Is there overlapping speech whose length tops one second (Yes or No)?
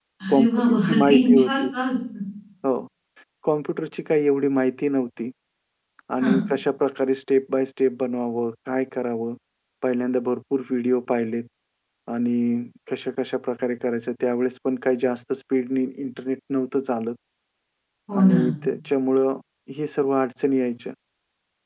Yes